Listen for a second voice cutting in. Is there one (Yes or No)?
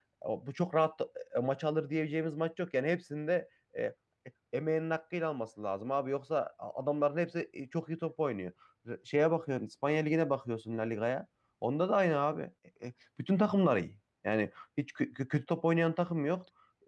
No